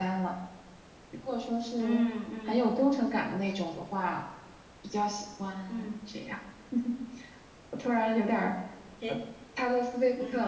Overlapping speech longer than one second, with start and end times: none

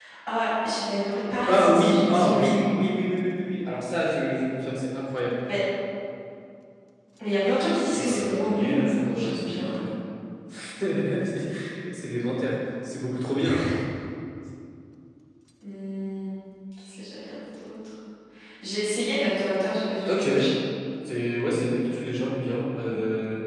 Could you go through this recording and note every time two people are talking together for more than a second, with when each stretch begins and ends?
1.5-2.7, 7.9-9.8

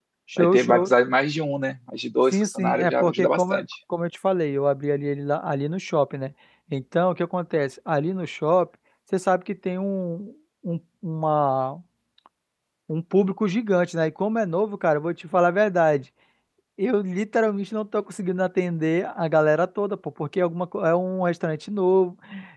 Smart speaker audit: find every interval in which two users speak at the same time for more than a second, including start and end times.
2.3-3.6

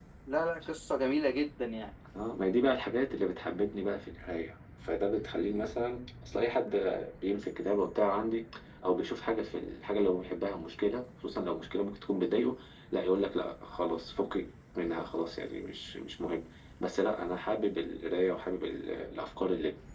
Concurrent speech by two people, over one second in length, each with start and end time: none

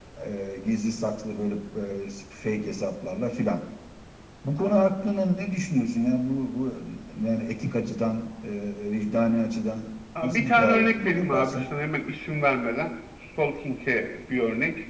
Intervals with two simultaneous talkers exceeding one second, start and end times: 10.2-11.6

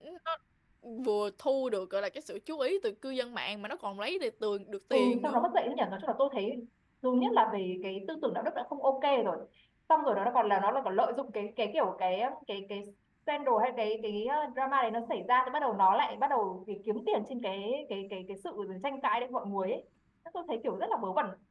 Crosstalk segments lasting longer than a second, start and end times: none

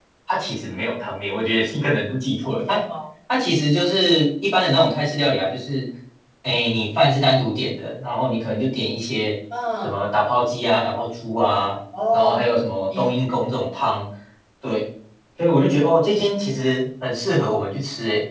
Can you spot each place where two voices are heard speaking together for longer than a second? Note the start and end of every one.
none

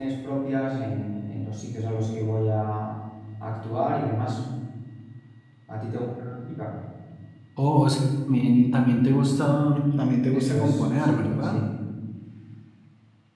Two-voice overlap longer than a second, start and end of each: 10.3-11.6

